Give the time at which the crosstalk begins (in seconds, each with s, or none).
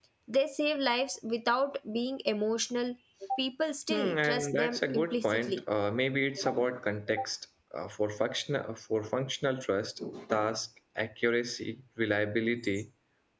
3.9 s